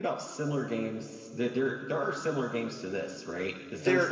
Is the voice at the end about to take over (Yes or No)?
No